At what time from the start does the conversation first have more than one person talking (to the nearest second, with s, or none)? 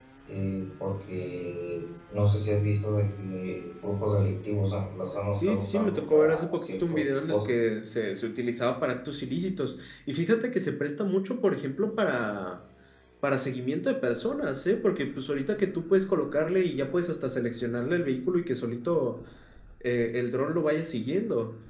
5 s